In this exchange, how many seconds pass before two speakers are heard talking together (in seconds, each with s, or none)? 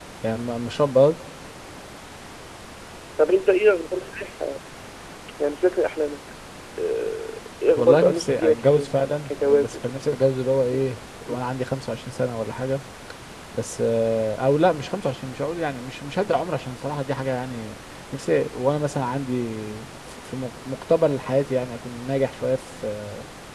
7.8 s